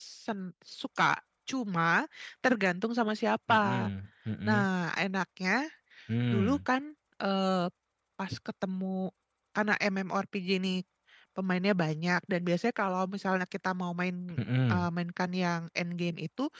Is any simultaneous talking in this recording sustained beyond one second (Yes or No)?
No